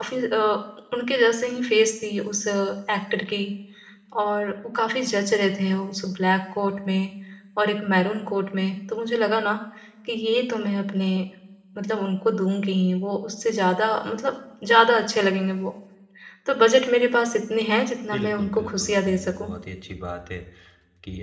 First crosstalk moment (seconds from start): 18 s

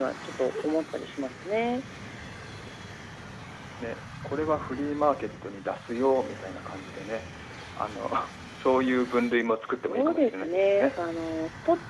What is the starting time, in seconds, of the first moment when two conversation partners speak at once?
10 s

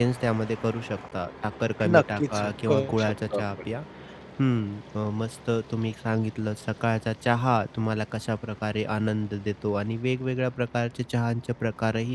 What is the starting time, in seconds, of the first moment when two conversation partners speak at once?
2 s

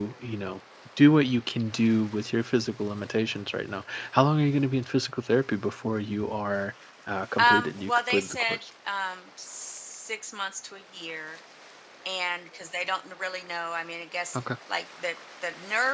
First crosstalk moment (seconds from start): 7 s

